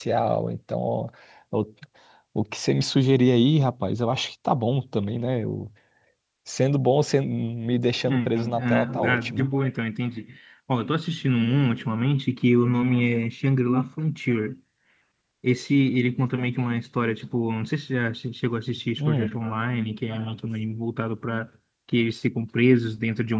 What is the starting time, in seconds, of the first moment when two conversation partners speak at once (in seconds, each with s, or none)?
8.0 s